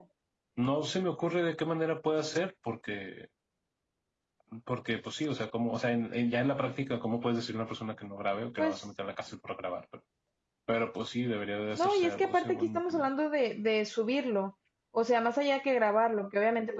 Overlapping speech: Yes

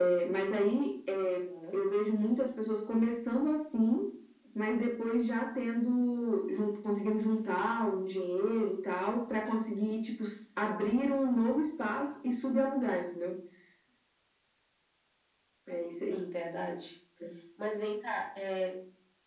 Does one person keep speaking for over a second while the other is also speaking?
No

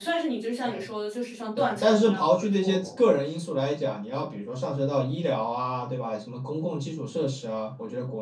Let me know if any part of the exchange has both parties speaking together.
Yes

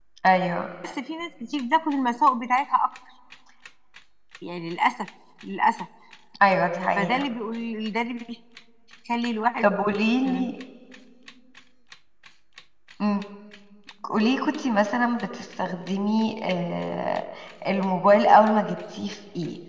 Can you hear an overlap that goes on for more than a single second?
No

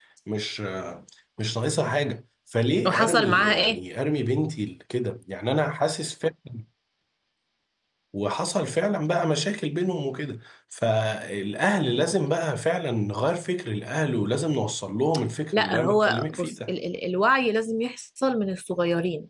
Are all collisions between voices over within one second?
No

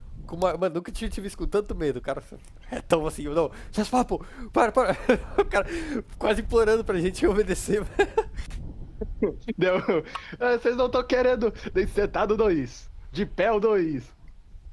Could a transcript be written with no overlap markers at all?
Yes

